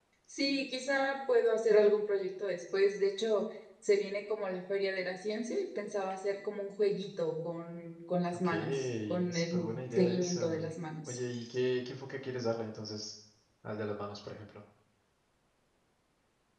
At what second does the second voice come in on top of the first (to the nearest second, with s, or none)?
8 s